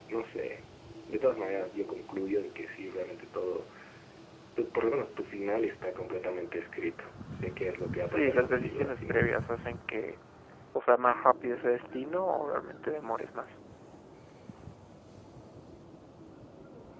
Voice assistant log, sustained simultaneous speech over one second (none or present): present